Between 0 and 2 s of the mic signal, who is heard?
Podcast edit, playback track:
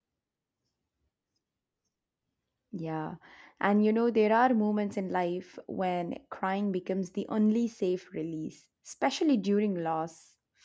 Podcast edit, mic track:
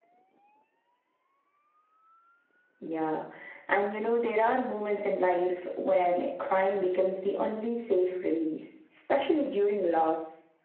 neither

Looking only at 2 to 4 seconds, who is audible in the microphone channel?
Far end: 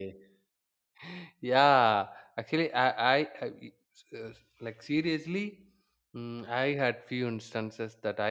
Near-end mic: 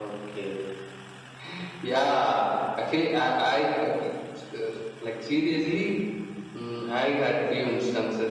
echo only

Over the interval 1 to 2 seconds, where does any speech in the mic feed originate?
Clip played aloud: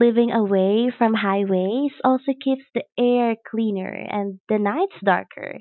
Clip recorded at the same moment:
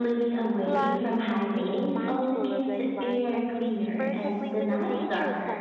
both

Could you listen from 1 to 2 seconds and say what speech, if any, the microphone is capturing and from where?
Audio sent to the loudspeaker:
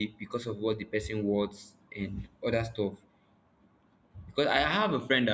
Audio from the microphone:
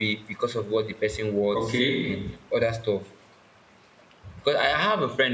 both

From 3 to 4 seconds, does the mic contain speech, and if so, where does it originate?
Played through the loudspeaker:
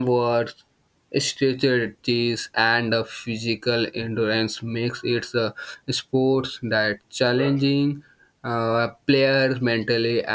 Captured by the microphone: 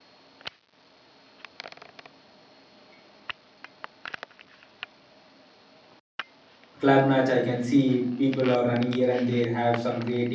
neither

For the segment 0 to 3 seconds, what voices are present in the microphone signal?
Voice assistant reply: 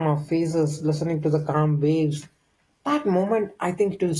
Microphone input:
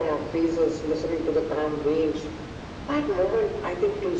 echo only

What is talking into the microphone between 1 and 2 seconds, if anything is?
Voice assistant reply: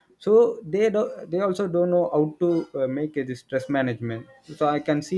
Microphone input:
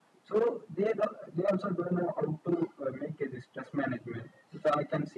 echo only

